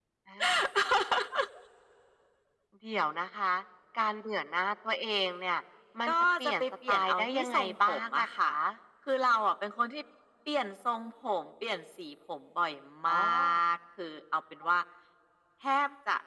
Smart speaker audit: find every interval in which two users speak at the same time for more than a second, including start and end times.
6.1-8.5

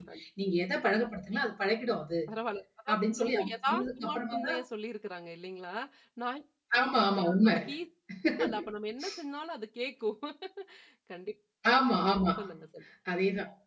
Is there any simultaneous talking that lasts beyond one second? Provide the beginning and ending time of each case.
2.9-4.6

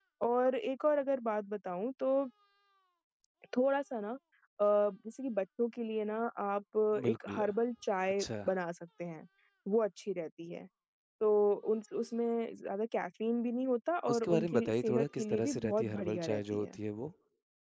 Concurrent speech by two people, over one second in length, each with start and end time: 14.1-16.8

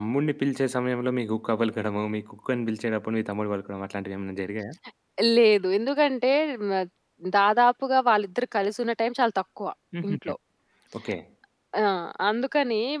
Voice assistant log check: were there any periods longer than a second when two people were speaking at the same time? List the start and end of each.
none

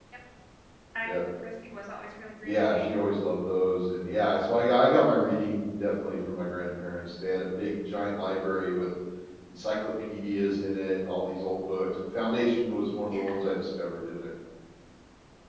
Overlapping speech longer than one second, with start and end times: none

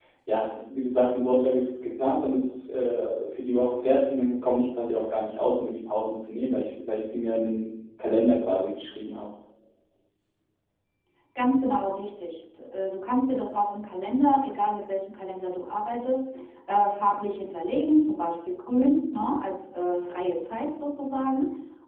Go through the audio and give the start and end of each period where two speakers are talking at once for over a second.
none

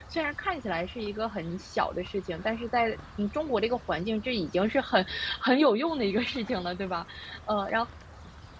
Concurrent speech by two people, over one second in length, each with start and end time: none

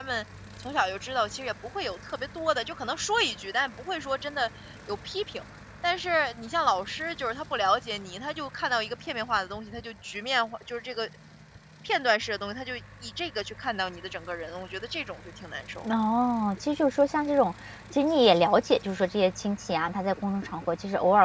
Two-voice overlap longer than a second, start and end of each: none

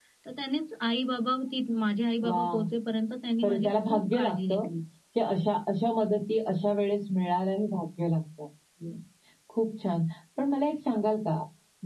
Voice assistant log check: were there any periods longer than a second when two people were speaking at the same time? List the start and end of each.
3.4-4.6

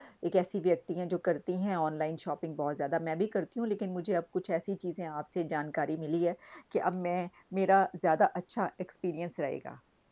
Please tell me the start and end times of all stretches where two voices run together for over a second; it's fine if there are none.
none

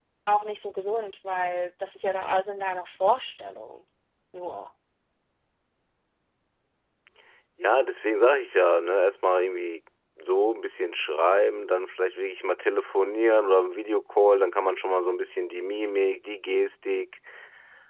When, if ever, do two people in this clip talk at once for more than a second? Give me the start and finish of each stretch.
none

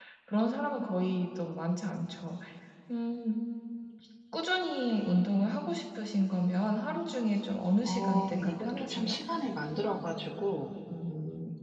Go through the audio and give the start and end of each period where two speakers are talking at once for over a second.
7.8-9.2

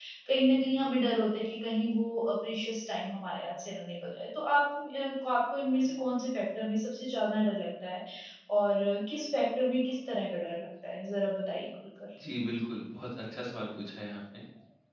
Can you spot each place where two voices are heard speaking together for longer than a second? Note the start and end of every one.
none

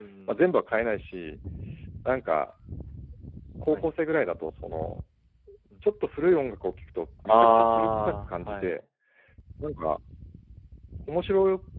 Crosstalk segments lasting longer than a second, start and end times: 7.2-8.8

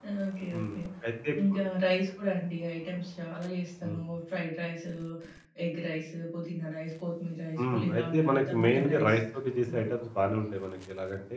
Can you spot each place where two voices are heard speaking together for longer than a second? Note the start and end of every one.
7.6-9.2

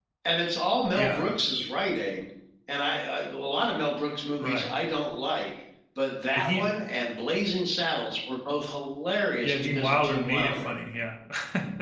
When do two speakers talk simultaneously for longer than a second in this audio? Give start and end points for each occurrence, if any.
9.4-10.7

